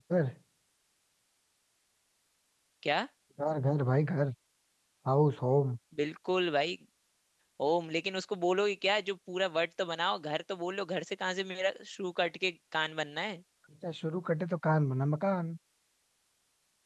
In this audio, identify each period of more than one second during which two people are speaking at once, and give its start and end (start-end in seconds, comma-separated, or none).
none